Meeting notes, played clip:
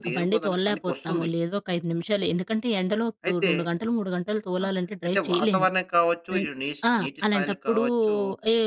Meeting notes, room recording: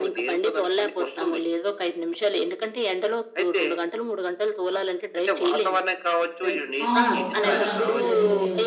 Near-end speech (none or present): present